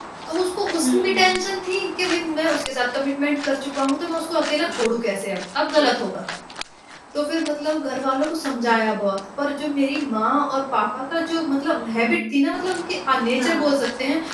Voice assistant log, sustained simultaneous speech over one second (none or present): none